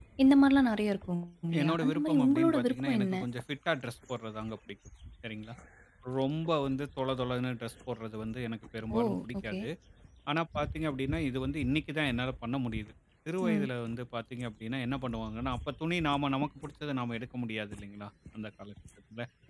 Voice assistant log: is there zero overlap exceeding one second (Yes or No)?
No